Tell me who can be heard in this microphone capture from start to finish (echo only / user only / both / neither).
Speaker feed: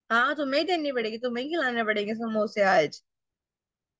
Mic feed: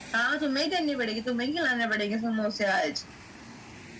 echo only